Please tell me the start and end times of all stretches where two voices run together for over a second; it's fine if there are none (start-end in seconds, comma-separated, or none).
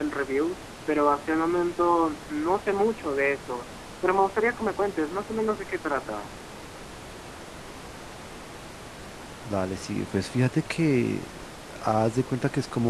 none